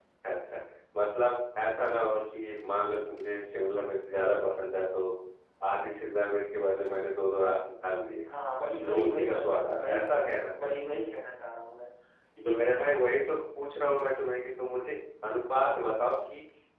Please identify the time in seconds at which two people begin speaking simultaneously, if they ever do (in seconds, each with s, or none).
8.8 s